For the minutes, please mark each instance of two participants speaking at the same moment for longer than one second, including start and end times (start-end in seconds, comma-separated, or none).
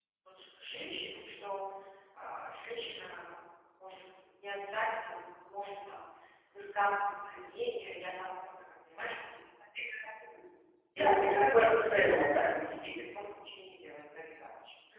11.0-12.3